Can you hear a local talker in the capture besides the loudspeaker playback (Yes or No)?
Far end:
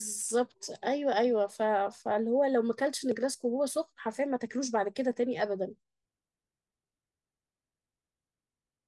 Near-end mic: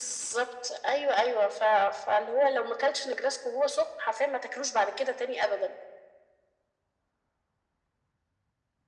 No